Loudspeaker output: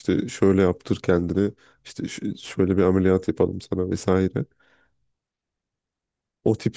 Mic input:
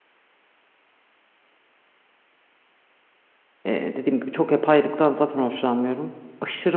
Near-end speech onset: 3.6 s

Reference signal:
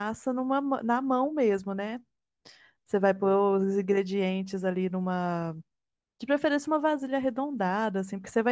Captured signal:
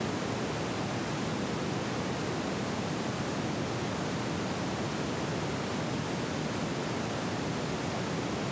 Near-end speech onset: none

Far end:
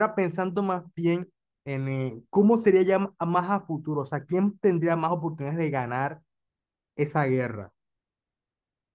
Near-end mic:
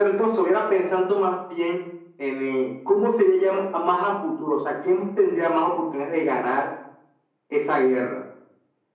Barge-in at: none

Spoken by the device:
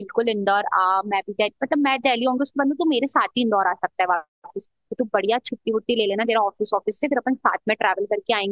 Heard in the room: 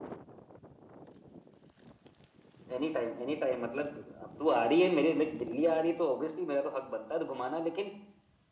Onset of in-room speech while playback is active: 2.8 s

